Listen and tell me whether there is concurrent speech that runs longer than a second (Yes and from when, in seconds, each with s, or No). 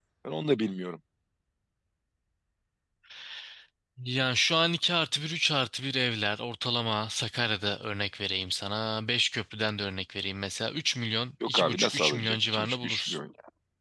Yes, from 11.4 s